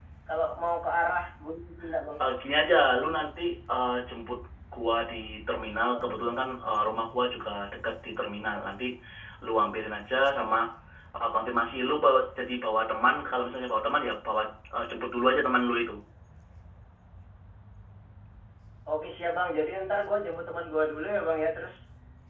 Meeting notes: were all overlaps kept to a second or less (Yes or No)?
Yes